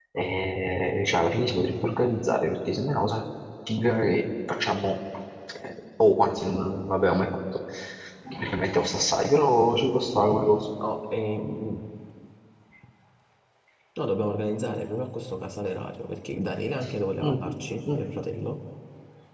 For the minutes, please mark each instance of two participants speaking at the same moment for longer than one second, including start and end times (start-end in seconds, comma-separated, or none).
none